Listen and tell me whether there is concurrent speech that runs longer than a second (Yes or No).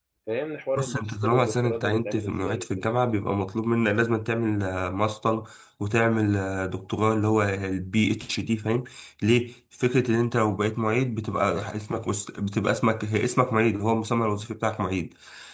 Yes